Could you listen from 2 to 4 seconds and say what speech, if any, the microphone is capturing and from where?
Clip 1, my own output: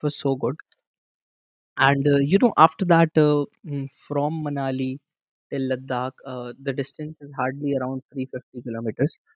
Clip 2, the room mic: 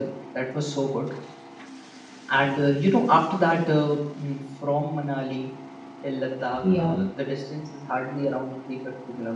echo only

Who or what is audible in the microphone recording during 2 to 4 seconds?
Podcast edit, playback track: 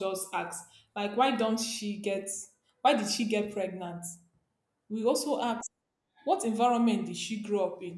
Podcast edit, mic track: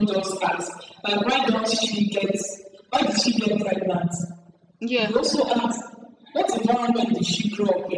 echo only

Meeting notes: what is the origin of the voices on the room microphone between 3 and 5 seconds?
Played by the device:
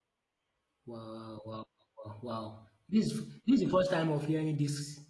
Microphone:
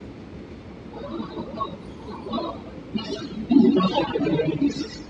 echo only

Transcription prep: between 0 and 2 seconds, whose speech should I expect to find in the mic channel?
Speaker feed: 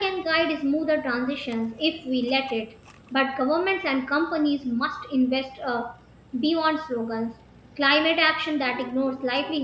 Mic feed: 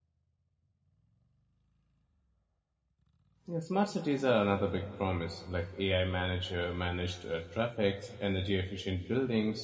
neither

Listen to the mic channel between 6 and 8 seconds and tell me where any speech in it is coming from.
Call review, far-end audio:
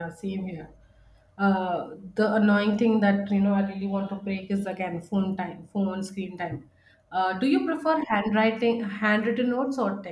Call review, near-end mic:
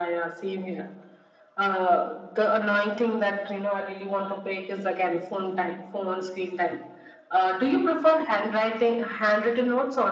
echo only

